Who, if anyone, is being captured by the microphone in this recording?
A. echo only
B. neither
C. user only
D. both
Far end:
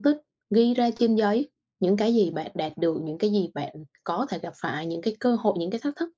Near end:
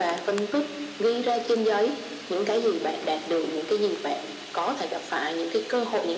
A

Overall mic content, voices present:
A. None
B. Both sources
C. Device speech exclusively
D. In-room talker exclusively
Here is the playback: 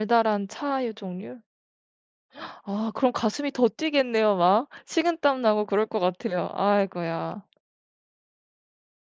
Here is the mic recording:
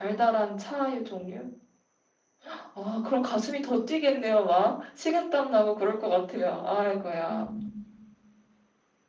B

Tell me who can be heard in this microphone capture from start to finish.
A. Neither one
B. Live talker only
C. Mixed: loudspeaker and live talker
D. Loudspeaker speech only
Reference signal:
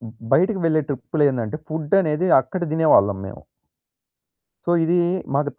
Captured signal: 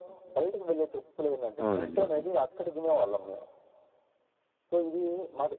C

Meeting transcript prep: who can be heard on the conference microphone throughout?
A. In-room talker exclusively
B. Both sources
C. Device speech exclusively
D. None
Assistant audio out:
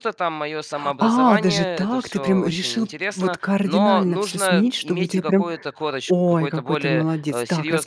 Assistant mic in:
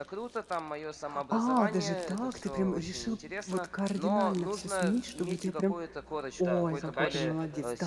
B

